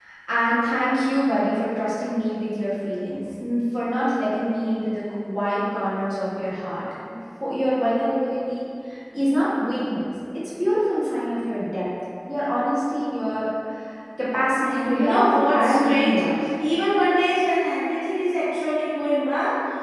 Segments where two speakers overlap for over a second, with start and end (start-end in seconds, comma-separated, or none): 14.6-16.2